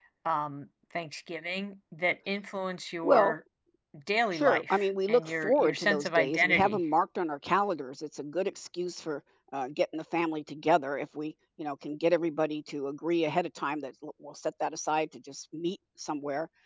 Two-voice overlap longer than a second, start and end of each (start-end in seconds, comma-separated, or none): 4.3-6.8